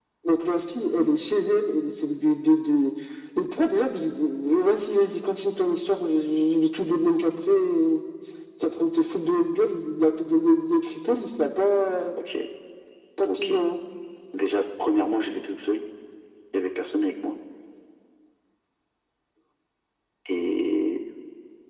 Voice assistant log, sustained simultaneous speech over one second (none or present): none